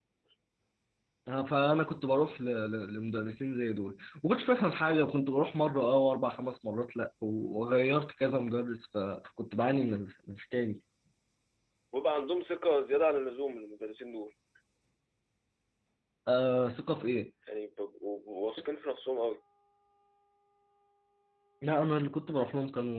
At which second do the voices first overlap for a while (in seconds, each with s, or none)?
none